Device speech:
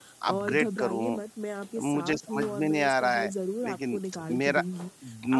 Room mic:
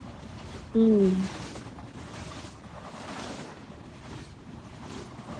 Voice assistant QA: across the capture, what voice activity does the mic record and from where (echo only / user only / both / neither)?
user only